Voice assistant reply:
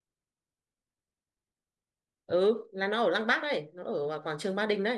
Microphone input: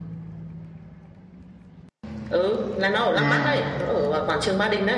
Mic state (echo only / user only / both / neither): both